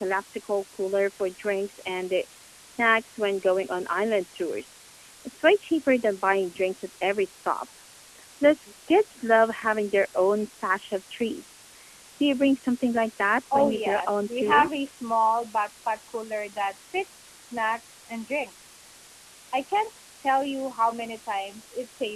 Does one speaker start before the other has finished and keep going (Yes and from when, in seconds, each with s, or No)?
Yes, from 13.5 s